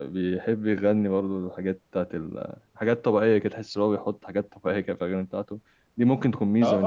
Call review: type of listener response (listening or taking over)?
taking over